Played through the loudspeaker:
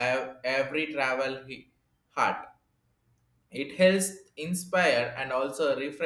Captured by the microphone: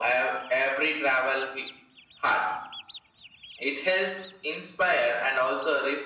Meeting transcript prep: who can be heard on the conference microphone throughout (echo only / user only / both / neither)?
echo only